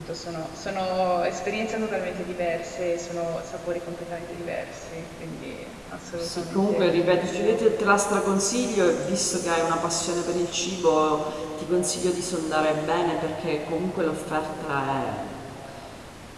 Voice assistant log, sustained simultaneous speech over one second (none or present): present